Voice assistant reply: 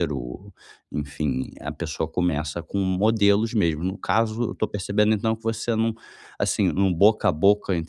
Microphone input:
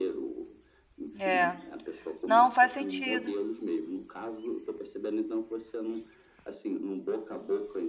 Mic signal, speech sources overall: both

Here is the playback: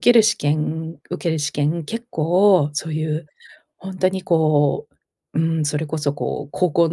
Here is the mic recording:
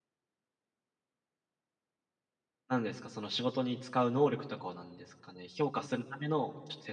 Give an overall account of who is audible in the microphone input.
user only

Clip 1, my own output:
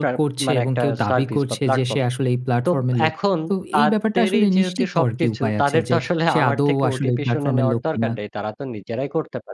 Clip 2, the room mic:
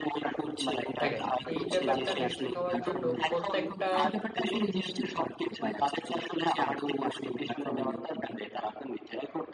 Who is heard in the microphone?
both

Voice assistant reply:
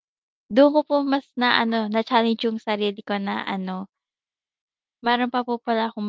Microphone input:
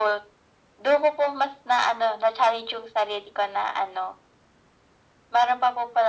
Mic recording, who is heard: echo only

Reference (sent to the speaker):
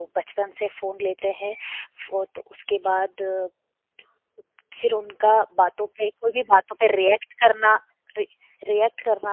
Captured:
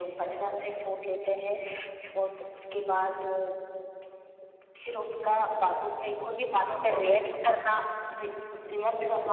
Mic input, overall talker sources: both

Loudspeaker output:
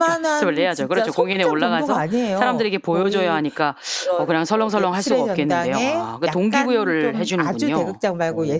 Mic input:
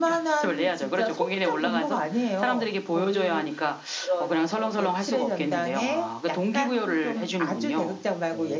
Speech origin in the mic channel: echo only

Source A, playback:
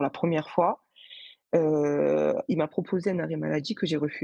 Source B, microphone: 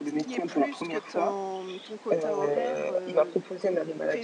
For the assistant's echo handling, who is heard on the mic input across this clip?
both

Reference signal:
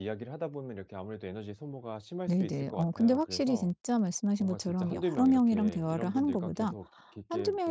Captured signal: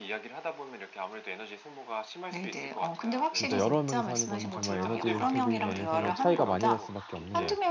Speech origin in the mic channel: both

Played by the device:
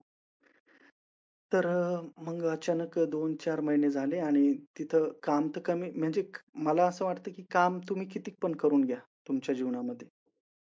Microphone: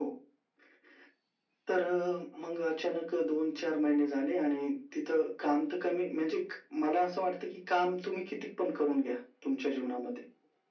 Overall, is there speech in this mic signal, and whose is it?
echo only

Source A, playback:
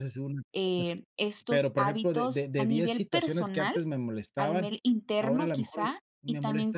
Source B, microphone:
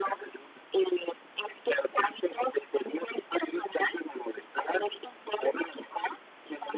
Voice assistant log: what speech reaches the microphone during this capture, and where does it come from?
echo only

